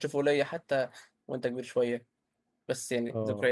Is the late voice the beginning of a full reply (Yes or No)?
No